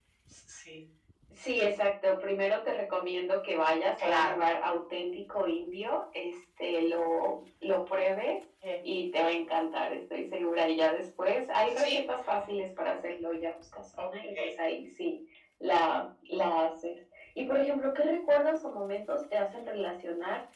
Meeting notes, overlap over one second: none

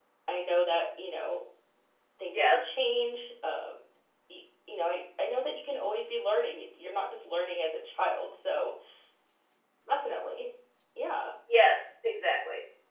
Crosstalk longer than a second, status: none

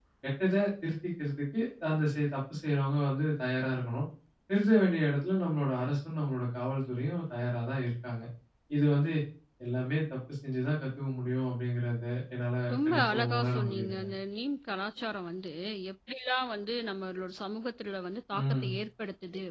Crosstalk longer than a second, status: present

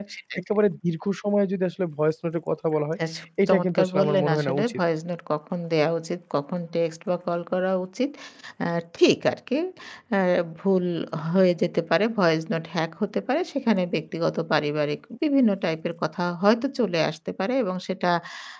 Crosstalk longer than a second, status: present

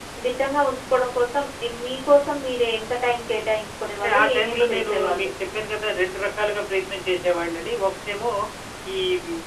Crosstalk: present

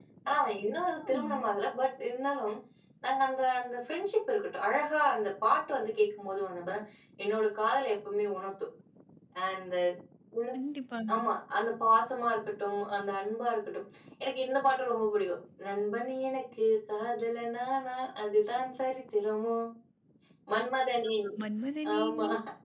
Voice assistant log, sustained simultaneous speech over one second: none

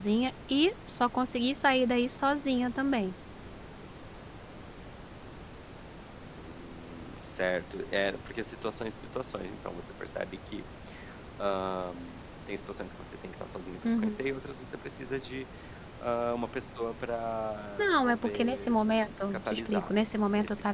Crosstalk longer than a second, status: present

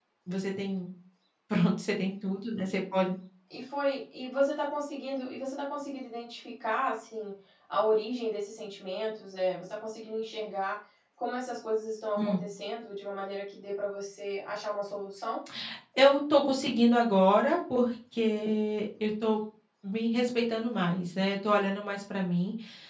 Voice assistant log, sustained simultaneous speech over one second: none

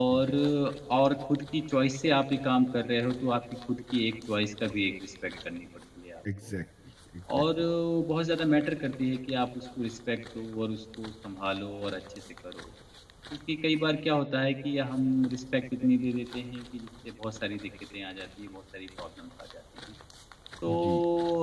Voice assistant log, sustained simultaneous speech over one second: none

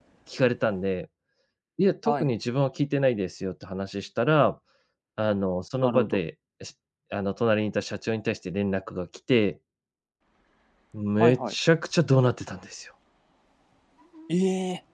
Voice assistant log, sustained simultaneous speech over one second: none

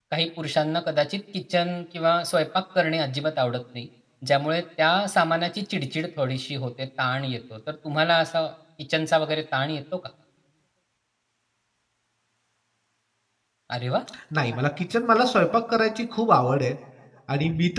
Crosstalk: none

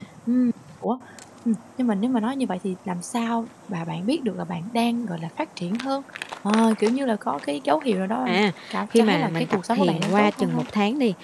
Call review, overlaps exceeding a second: present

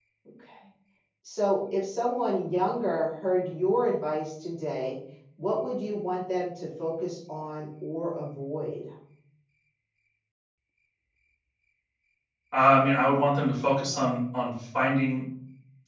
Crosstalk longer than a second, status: none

